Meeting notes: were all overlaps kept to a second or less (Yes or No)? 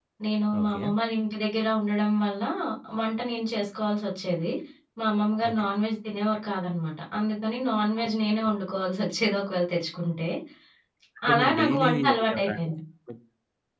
No